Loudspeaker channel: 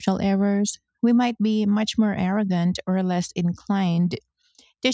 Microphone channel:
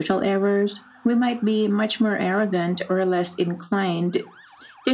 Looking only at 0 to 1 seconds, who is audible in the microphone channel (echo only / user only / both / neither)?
echo only